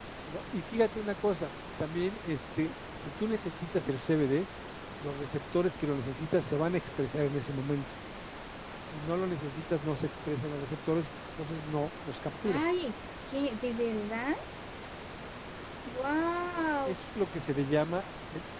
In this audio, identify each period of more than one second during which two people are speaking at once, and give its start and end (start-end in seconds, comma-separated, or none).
none